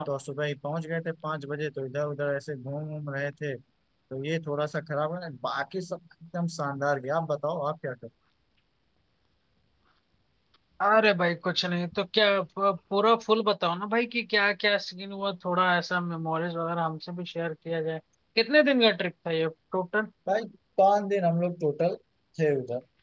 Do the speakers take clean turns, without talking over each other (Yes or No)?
Yes